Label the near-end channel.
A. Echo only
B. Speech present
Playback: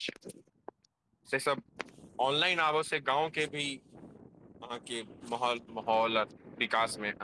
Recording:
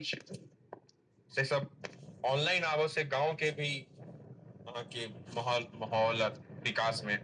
A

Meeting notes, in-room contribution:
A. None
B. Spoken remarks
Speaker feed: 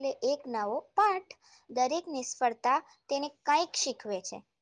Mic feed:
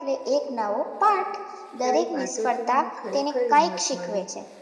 B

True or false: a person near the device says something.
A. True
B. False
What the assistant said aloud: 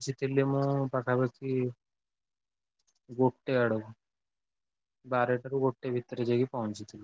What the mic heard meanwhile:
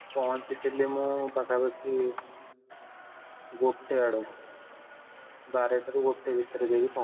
B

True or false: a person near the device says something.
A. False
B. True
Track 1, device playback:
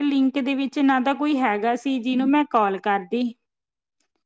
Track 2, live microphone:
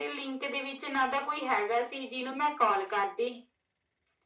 A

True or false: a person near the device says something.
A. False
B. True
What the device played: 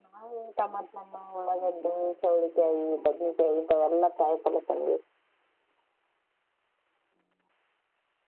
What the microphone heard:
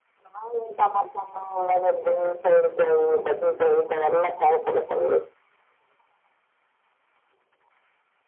A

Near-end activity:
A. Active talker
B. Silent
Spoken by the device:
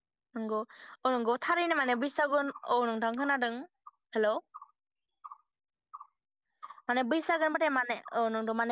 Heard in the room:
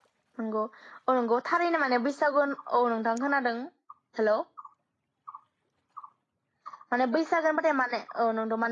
B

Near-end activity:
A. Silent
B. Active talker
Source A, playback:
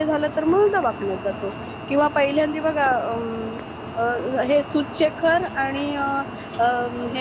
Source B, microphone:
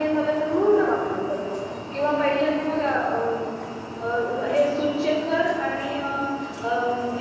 A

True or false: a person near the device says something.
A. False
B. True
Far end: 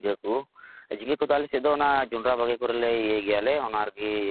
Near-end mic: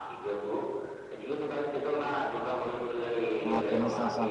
B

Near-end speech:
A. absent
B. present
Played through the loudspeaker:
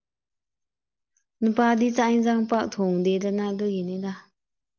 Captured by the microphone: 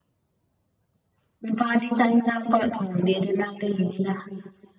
A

